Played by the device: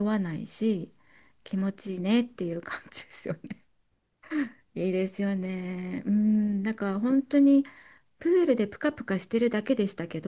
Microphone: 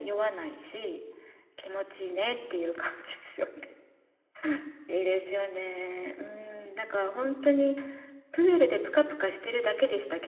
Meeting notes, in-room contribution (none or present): none